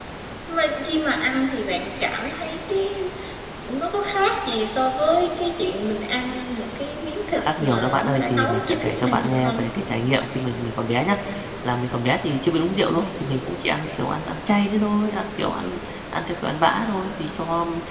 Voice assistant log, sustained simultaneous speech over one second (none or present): present